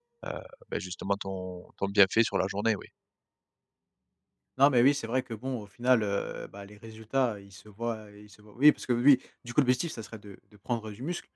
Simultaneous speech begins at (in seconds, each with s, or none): none